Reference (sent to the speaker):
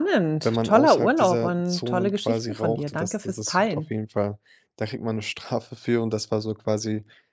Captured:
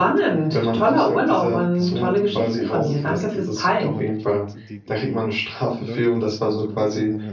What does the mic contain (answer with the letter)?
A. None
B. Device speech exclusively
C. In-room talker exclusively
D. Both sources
D